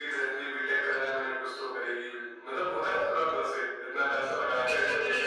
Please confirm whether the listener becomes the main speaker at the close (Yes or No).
Yes